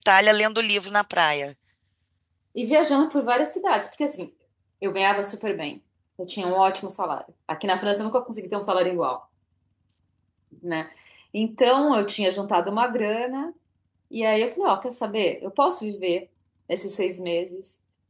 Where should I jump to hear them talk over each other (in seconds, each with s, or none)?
none